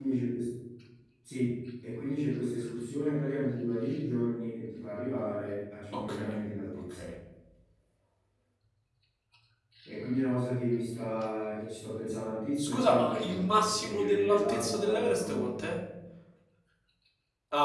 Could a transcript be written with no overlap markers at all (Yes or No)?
No